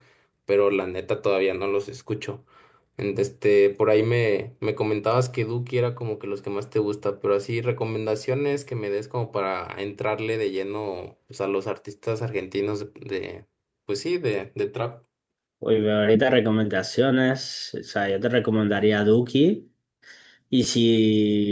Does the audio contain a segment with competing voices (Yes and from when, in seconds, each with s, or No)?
No